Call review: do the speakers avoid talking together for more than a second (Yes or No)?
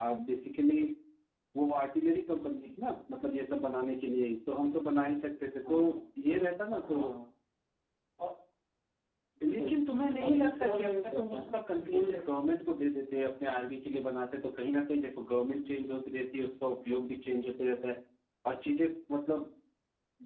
No